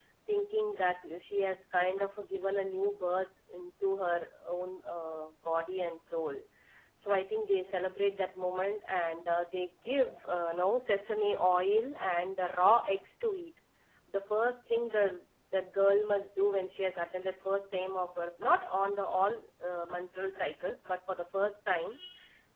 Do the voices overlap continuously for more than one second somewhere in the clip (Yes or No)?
No